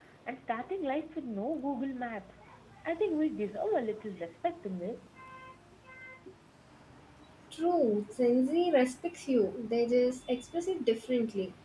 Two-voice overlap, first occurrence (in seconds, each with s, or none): none